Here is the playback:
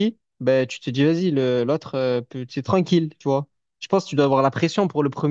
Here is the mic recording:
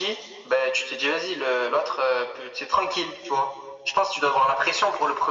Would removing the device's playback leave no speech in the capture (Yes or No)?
Yes